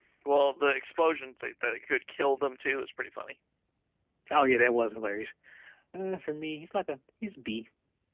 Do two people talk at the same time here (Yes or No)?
No